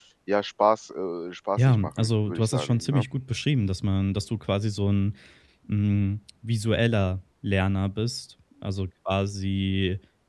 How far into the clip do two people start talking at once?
1.6 s

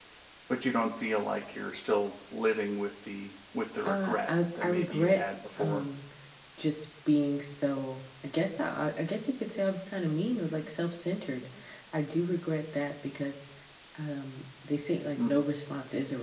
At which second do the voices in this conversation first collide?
3.9 s

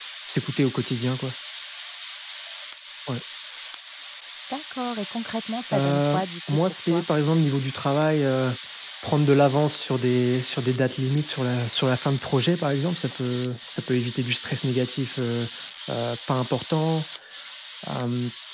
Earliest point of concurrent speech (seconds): 5.7 s

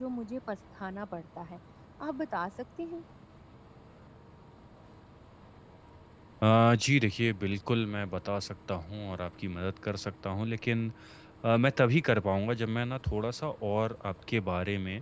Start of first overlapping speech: none

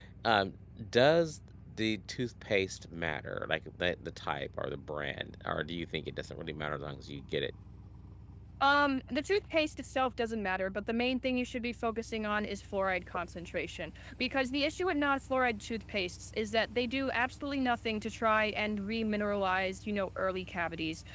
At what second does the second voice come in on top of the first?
none

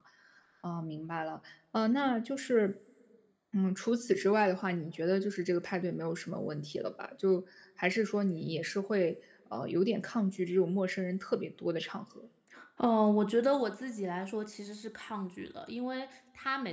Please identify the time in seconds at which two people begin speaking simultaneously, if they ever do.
none

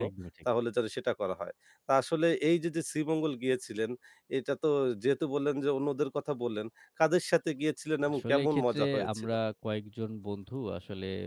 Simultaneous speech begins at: 8.0 s

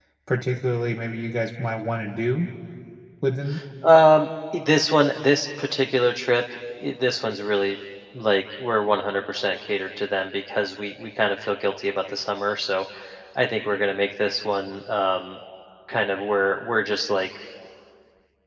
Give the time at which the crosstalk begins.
none

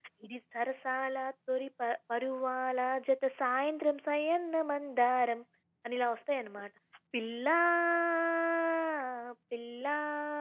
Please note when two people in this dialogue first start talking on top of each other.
none

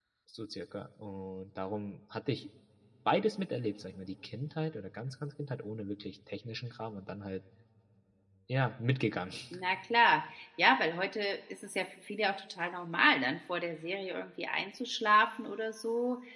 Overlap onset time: none

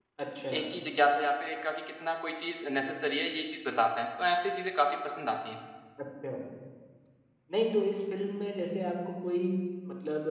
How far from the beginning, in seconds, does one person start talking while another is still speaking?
none

